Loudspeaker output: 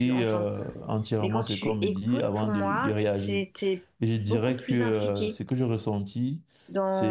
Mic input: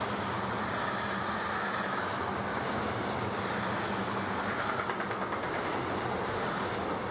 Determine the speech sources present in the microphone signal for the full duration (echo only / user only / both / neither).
neither